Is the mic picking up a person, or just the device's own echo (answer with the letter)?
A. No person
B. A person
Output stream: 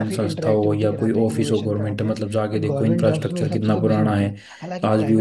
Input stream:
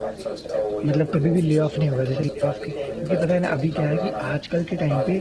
B